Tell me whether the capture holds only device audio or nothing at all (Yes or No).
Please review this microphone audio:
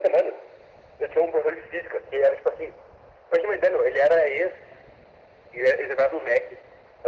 Yes